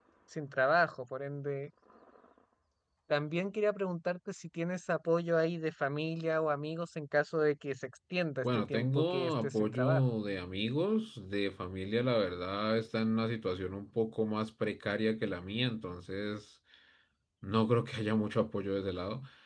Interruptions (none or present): present